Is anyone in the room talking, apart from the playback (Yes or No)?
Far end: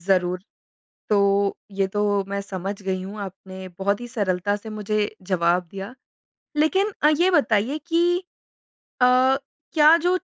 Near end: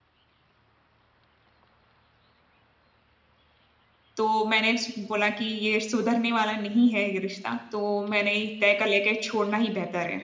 Yes